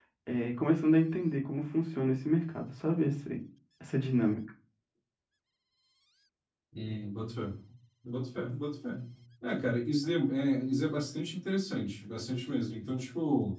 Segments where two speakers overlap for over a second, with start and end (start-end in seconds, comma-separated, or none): none